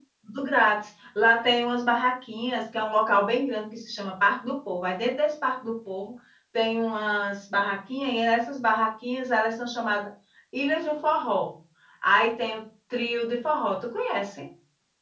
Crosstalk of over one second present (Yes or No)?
No